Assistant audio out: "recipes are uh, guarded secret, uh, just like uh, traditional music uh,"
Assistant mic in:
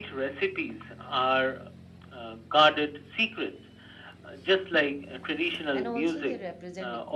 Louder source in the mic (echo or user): echo